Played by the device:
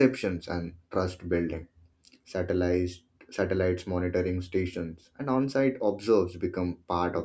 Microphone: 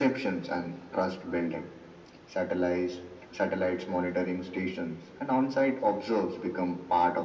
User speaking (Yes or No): No